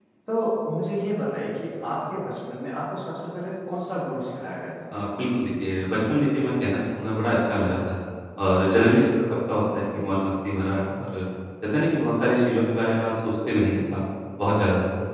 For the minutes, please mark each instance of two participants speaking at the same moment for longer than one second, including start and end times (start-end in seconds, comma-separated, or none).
none